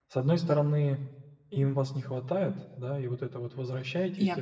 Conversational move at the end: listening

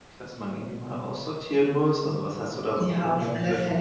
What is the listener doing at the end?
taking over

